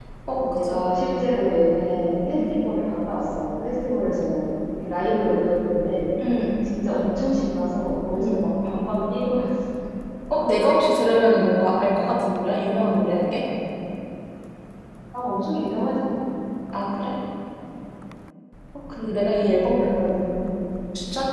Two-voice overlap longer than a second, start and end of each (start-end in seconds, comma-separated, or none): none